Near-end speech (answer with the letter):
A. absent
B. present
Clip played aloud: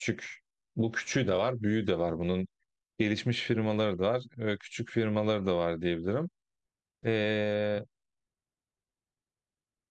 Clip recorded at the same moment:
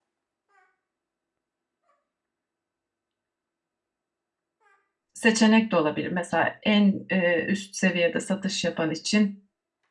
B